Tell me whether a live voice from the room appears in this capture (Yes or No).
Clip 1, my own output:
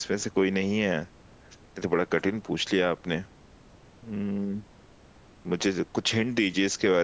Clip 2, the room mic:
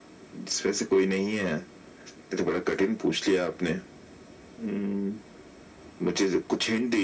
No